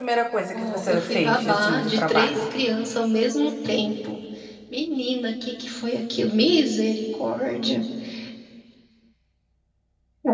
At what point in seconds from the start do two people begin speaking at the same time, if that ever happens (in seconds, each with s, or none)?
0.5 s